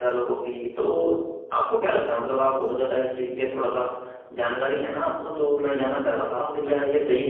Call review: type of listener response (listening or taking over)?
listening